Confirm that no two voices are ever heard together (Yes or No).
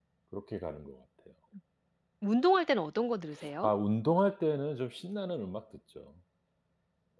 Yes